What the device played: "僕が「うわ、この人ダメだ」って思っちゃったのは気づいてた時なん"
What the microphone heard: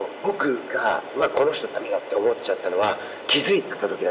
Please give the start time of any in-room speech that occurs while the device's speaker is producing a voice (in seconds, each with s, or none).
none